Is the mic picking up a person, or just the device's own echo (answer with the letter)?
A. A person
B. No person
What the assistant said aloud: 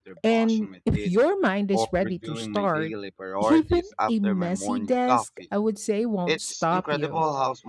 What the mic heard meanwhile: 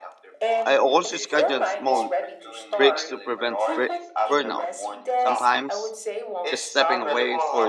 A